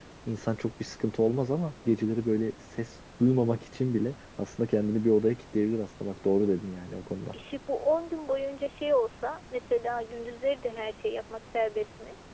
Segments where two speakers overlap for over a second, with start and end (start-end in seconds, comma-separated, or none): none